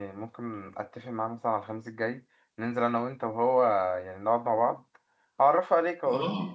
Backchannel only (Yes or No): No